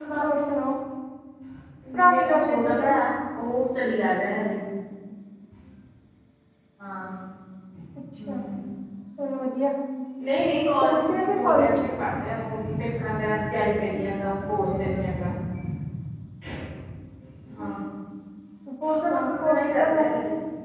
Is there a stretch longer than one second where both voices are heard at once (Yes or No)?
Yes